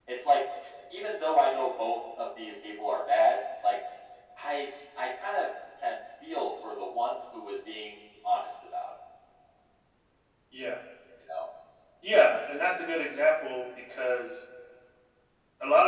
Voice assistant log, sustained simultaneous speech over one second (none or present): none